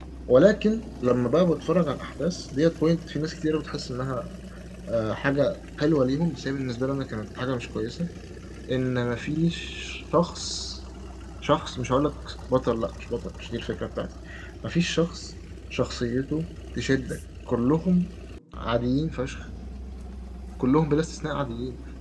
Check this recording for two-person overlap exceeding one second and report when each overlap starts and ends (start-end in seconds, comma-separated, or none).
none